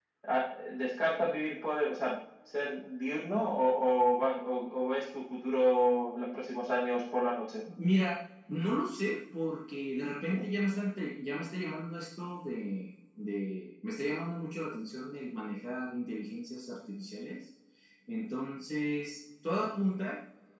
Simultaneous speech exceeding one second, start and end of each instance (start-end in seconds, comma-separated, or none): none